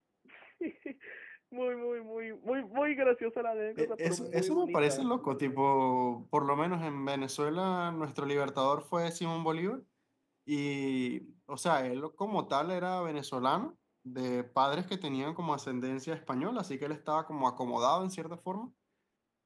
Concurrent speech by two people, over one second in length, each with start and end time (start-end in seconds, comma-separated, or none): 3.8-5.6